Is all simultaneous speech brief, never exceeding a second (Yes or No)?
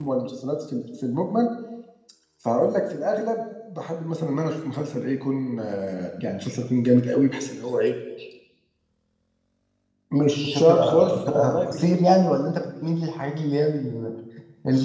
No